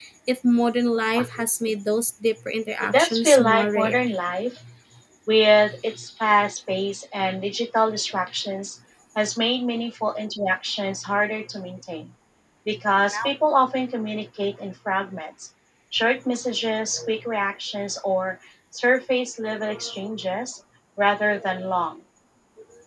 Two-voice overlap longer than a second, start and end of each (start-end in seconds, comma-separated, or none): 2.8-4.1